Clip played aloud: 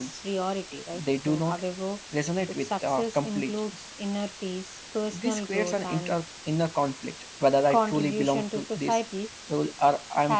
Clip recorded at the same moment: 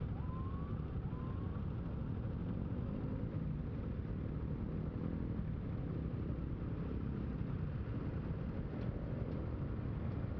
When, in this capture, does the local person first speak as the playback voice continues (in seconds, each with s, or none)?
none